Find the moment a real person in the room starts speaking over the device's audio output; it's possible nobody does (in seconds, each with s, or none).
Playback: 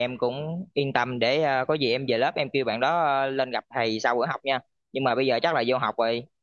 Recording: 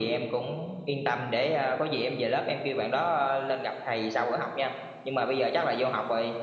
none